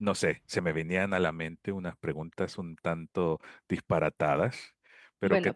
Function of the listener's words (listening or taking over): taking over